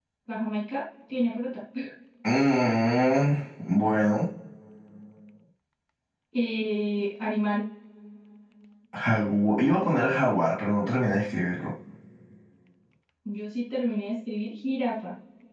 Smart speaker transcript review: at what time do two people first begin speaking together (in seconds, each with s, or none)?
none